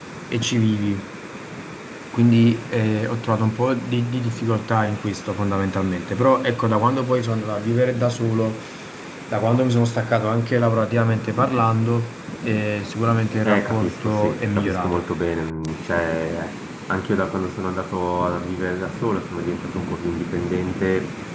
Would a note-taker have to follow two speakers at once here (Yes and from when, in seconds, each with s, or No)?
Yes, from 13.4 s